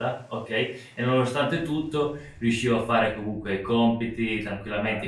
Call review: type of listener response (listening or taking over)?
listening